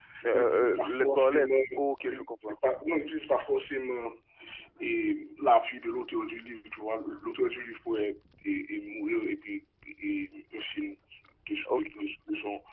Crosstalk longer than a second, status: present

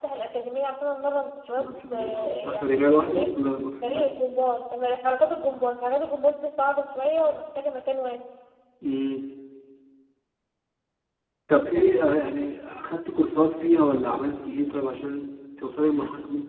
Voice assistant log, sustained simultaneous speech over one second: present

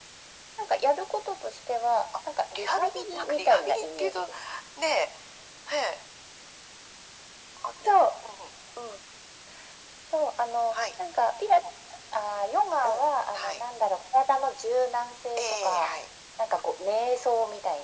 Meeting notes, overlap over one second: present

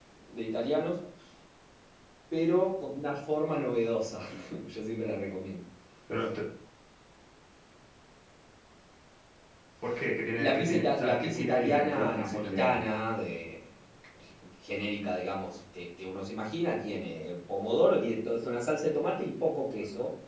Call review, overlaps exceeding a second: present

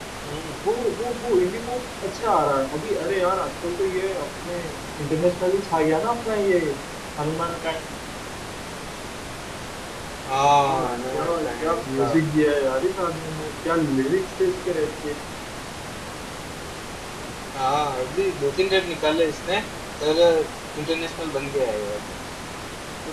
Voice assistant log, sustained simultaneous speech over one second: present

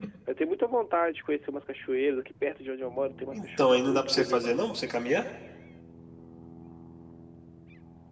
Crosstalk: present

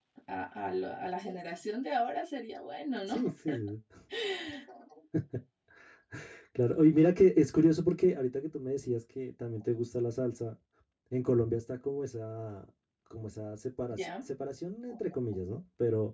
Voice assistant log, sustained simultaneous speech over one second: none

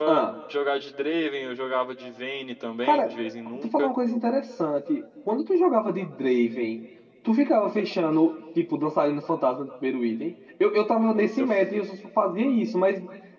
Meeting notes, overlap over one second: none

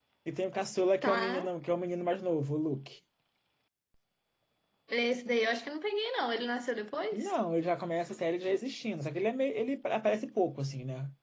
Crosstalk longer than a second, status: none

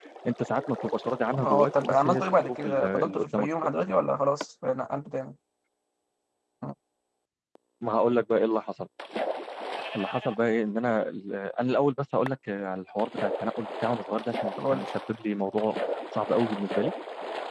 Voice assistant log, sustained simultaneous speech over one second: present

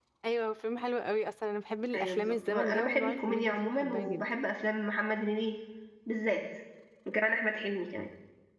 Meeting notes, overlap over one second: present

